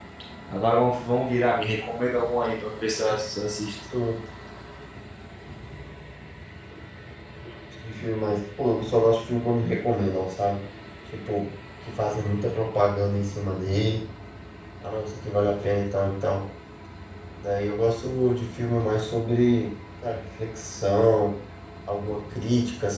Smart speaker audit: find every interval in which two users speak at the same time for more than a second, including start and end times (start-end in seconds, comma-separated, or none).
none